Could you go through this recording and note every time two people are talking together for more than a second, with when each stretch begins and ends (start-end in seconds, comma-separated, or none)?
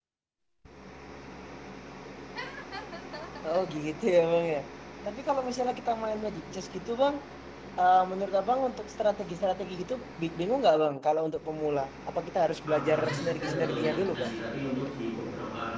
12.7-14.3